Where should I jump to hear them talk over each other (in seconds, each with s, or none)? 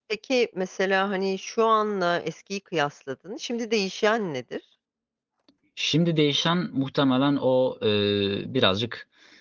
none